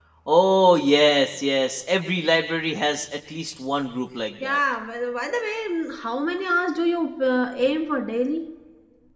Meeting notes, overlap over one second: none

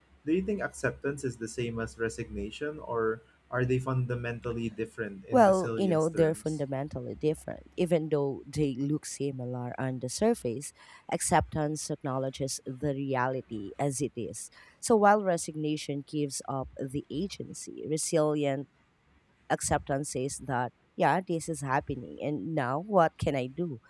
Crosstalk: present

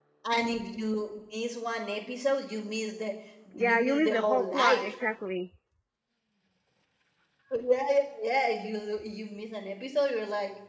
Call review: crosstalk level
present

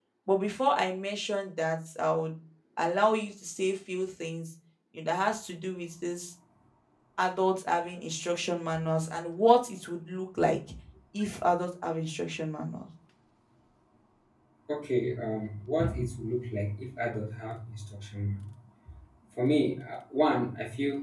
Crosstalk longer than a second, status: none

